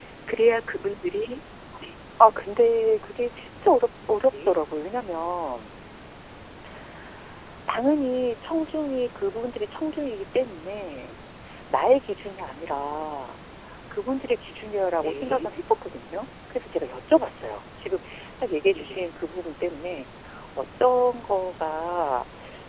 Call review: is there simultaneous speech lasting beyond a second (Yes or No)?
No